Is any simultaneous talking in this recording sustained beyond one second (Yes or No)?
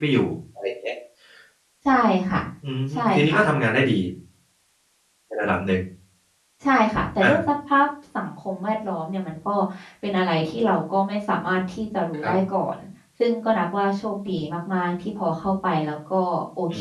No